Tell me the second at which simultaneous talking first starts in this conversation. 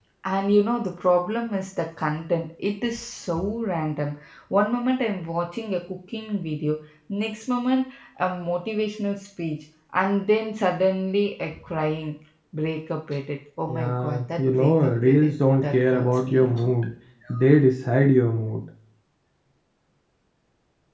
14 s

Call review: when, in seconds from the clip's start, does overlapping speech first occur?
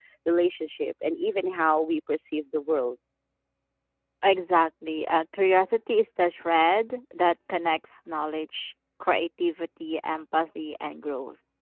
none

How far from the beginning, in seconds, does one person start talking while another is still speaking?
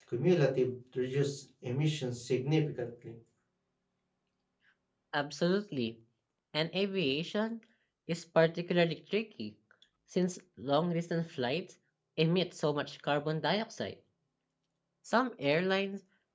none

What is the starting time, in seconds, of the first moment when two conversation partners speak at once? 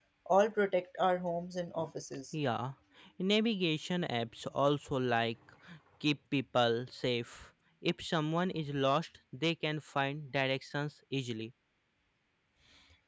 none

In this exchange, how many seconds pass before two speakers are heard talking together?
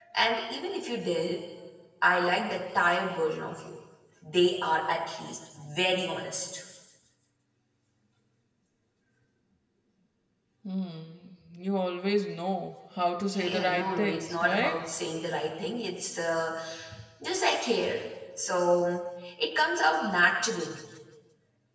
13 s

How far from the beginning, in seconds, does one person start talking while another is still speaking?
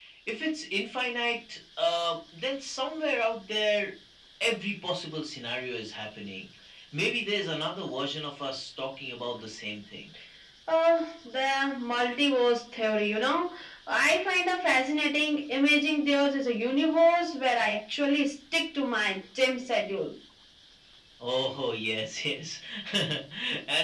none

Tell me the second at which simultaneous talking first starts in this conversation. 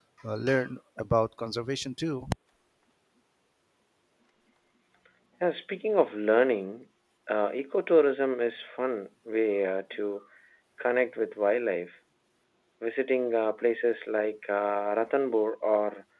none

